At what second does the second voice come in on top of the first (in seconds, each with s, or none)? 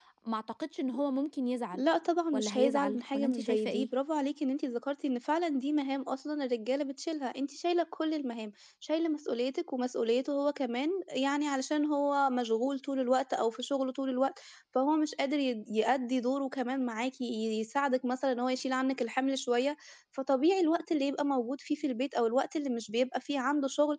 2.3 s